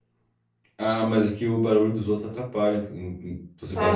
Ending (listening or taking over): taking over